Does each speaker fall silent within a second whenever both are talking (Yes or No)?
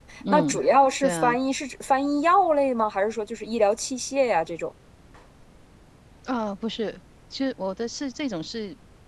Yes